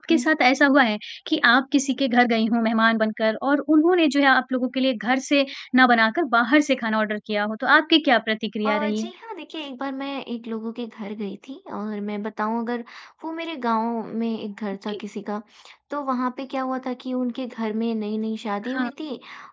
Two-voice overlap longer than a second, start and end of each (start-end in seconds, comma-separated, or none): none